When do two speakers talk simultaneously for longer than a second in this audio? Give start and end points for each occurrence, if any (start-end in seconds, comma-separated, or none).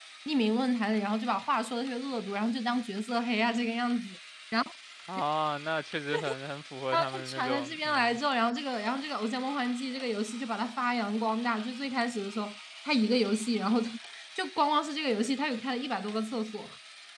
6.9-8.2